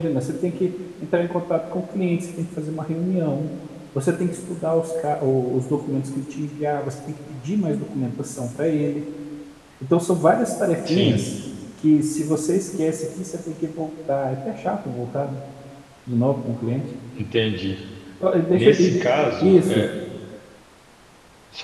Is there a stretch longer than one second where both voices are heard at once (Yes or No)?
Yes